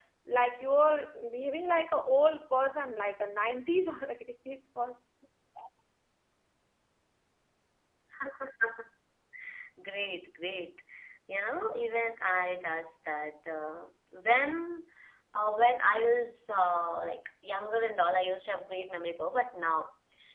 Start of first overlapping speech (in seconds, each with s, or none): none